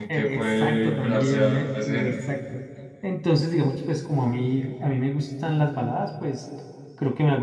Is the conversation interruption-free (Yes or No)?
No